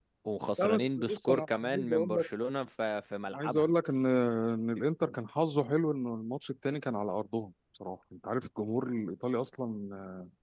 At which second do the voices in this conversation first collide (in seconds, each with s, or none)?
0.6 s